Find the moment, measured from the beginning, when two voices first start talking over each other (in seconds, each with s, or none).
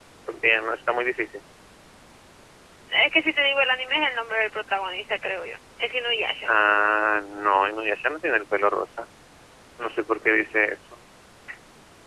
none